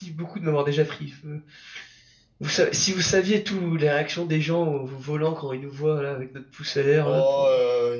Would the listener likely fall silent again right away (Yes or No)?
No